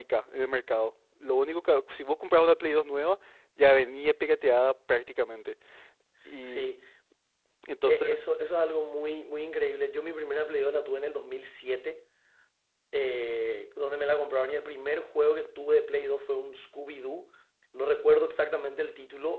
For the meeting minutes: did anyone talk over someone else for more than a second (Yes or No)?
No